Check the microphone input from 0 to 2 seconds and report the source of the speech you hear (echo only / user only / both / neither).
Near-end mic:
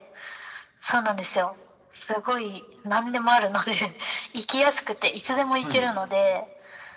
echo only